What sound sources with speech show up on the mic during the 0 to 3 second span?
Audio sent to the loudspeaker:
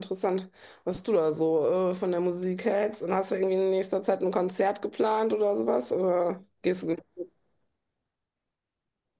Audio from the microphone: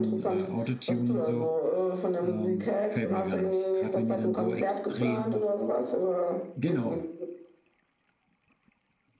both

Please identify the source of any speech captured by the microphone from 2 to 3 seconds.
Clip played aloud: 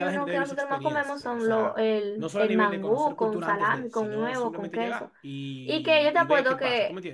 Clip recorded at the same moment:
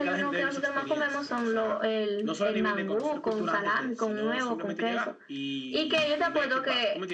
echo only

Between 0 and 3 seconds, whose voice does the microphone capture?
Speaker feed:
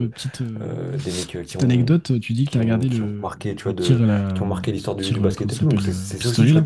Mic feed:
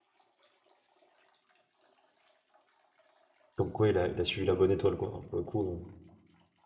neither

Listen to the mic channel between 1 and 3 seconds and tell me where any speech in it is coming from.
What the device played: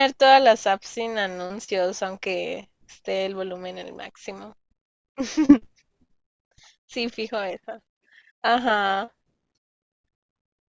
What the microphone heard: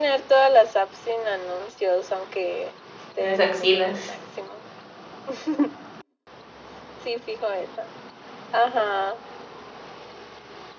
echo only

